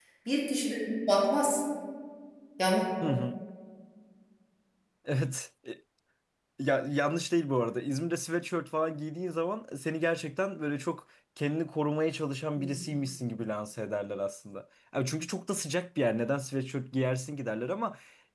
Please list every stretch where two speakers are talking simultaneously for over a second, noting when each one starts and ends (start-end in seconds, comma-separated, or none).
none